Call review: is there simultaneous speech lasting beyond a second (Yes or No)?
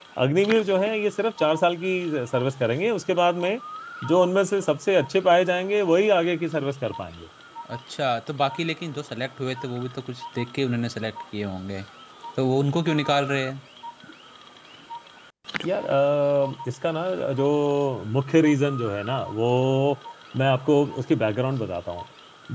No